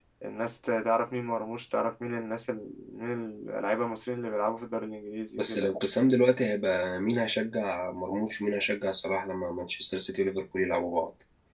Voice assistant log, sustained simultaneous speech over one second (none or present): none